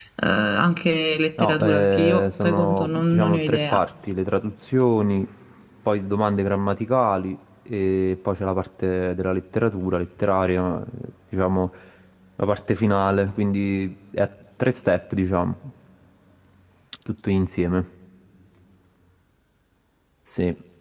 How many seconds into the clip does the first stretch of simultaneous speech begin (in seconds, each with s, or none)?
1.4 s